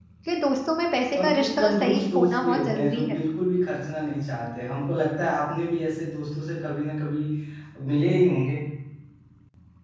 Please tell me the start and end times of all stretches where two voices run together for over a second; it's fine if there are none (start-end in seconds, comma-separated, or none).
1.1-3.2